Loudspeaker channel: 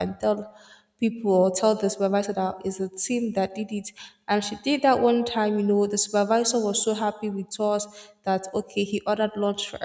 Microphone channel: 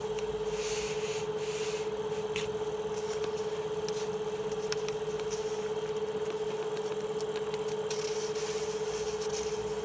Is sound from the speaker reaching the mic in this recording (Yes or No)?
No